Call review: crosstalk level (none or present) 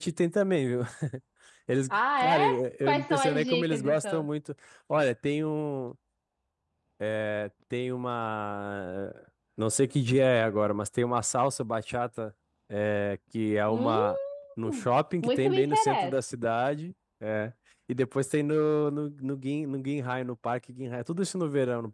present